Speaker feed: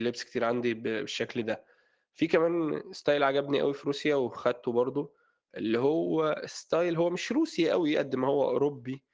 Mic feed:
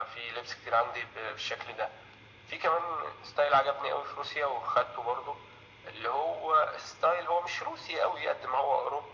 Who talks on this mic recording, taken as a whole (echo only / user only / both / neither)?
echo only